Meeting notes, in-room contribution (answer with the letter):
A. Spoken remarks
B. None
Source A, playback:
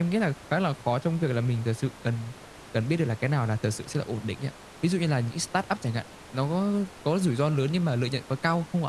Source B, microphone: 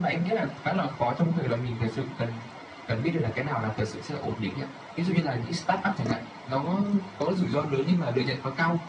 B